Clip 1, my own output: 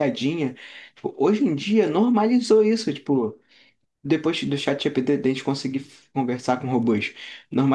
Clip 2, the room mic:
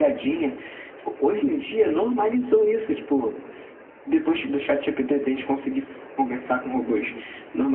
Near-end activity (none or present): none